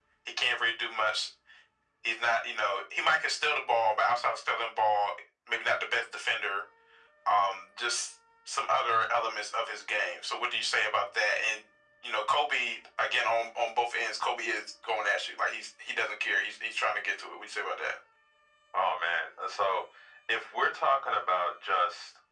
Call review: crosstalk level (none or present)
none